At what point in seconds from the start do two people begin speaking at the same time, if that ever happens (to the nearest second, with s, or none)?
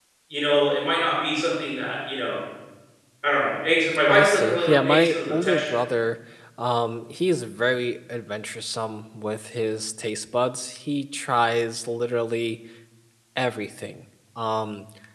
4 s